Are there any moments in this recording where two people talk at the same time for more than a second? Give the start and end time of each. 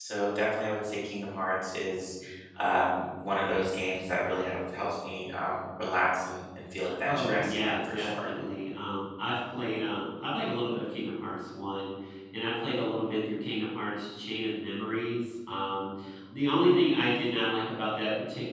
7.1-8.3

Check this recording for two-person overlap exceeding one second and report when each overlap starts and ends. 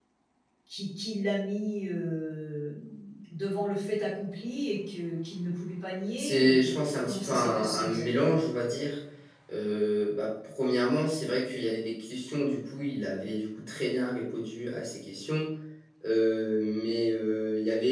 6.2-8.4

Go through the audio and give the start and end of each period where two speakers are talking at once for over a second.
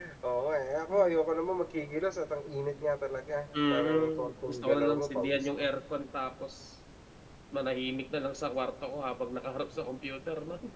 3.7-5.7

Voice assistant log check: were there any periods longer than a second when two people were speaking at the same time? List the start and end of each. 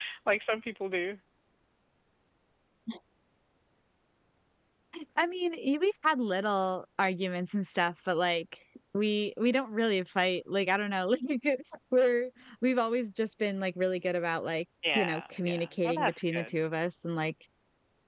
14.9-16.5

